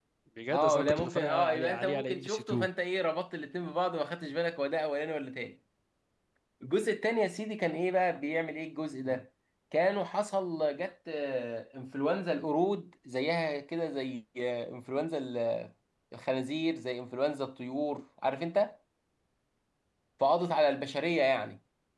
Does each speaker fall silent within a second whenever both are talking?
No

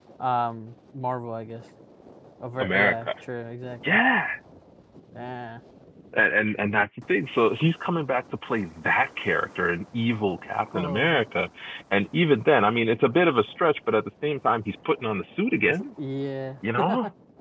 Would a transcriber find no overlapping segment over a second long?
Yes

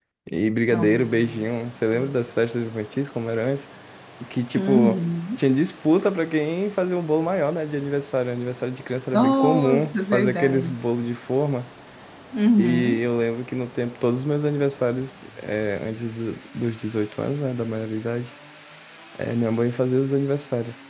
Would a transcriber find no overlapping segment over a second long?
No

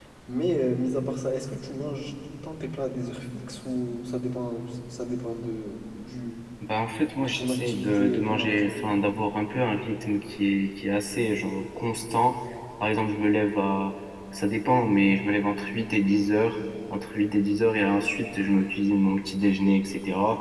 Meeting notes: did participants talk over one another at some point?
Yes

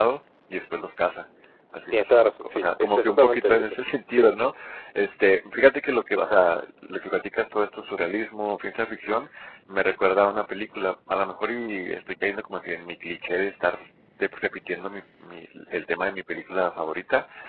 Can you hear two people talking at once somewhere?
Yes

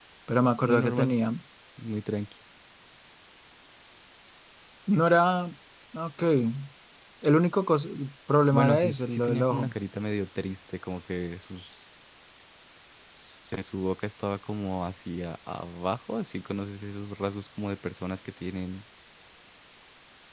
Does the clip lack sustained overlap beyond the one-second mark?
No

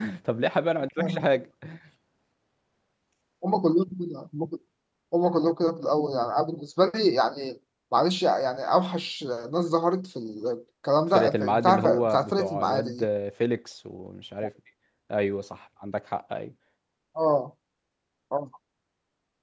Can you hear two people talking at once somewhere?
Yes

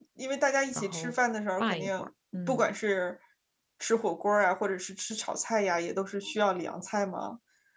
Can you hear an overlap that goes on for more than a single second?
No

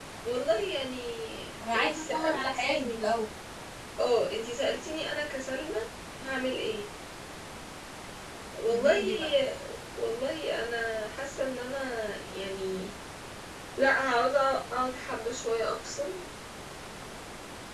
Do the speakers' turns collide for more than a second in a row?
Yes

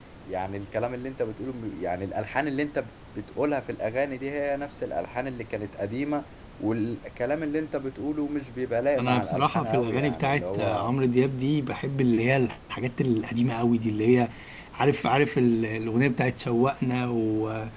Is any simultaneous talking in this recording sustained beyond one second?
Yes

